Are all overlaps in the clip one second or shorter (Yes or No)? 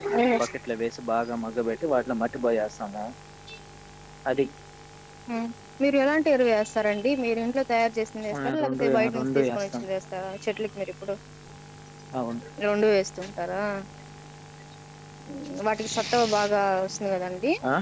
No